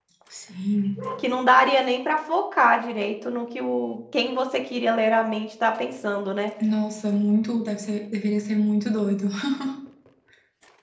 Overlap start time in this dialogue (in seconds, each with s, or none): none